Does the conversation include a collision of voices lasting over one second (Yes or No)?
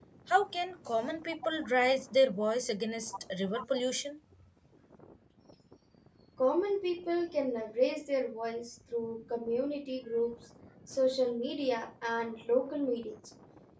No